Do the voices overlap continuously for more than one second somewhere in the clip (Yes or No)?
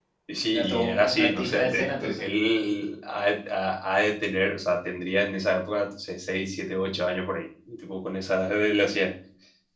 Yes